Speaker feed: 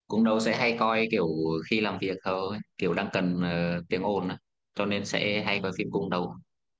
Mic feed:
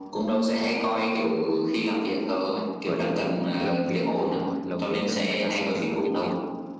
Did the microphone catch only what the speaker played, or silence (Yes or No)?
No